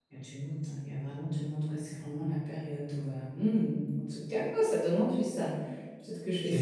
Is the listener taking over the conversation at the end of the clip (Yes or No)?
No